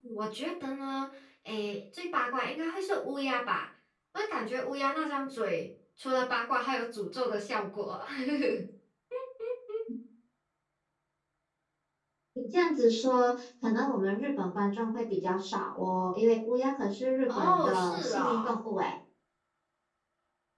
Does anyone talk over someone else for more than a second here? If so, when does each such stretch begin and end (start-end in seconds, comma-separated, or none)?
17.3-18.5